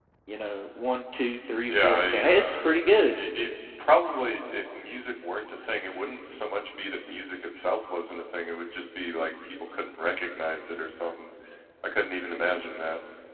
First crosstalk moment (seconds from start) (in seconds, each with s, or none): 1.7 s